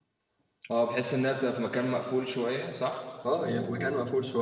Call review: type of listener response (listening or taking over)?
taking over